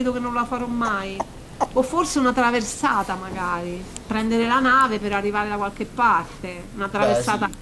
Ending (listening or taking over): listening